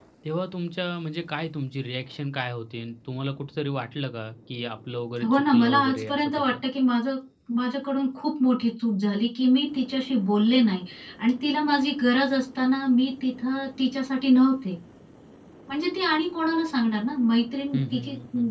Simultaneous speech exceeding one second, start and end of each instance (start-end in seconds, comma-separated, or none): 5.3-6.5